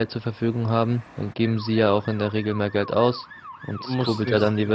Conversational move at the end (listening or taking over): taking over